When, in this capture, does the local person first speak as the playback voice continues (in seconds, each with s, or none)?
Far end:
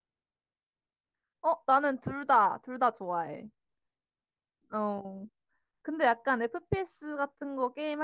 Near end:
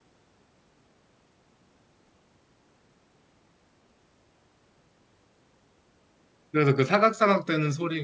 6.5 s